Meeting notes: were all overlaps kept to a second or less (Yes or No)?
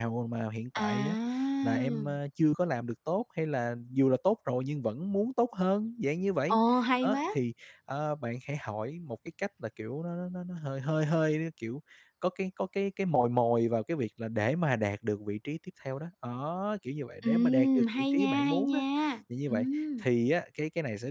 No